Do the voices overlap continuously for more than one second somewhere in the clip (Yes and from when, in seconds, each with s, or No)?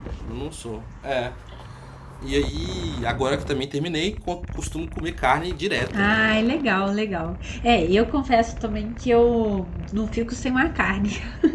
No